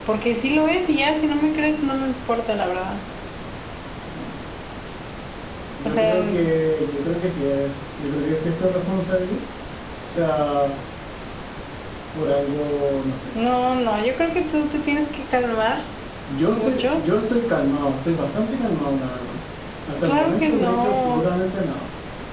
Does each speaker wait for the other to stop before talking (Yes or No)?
No